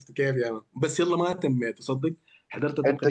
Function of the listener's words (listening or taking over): listening